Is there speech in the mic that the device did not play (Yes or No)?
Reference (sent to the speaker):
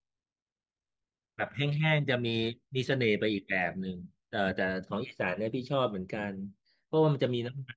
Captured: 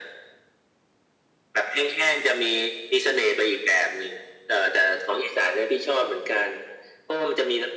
No